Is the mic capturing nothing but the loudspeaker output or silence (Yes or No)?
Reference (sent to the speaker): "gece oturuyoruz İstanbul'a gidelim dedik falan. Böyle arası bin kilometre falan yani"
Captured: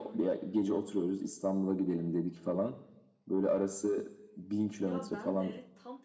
No